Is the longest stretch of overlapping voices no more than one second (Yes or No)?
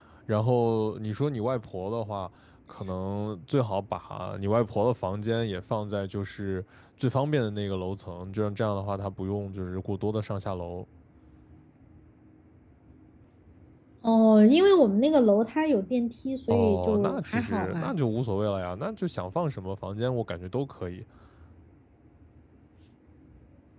No